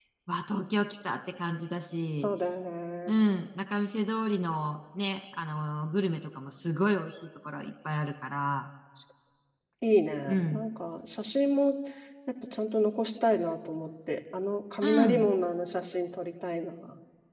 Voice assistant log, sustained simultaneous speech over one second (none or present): none